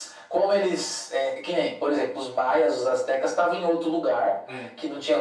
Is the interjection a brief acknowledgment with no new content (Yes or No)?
Yes